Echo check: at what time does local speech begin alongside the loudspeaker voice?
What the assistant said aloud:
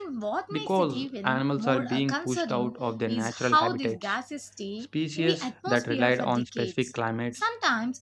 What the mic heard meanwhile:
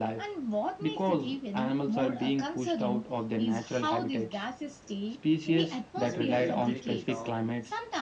5.9 s

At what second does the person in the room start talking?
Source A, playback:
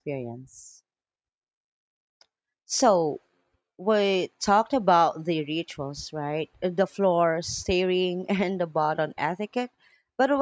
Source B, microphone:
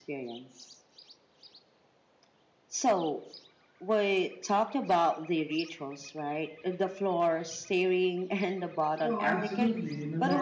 9.0 s

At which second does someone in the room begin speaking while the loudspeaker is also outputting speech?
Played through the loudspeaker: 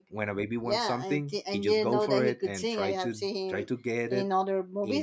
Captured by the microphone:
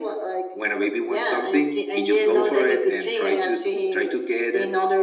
none

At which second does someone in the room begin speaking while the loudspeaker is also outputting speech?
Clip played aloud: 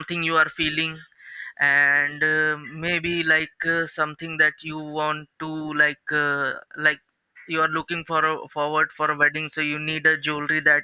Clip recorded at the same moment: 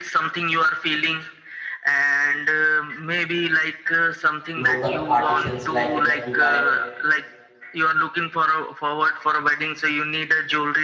4.6 s

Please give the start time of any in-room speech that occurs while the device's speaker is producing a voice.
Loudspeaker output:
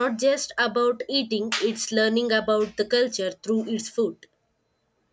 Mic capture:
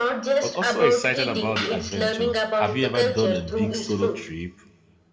0.4 s

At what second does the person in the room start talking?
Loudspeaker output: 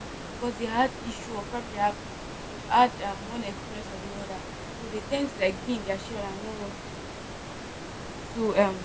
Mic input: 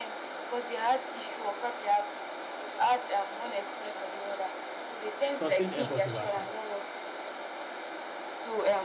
5.3 s

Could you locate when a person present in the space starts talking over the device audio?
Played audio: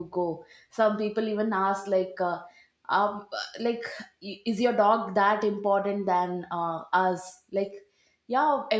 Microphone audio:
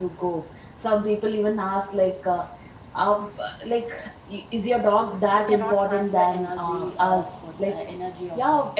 5.3 s

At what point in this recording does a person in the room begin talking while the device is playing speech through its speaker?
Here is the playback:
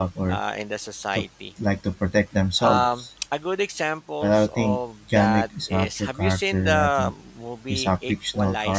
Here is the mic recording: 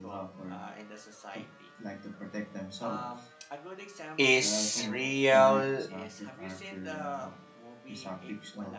4.2 s

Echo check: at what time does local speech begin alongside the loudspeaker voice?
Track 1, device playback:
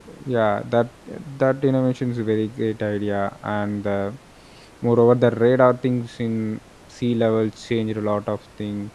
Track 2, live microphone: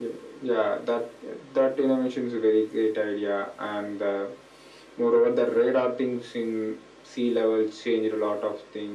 none

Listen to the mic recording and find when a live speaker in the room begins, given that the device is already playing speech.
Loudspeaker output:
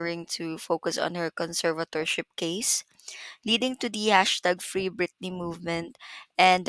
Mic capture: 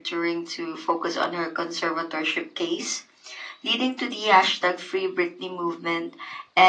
none

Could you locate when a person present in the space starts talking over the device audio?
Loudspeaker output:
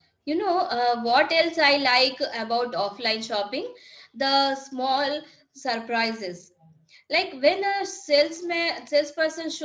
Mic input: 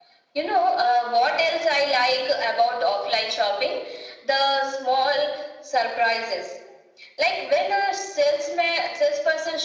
none

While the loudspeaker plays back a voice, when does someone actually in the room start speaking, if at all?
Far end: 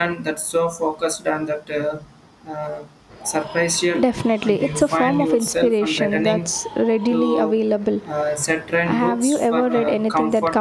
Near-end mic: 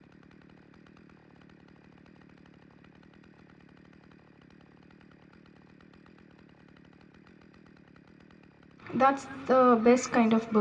8.9 s

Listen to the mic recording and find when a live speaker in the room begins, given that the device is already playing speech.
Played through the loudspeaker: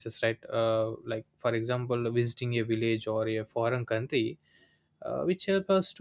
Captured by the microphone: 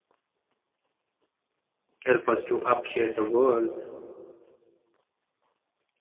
2.0 s

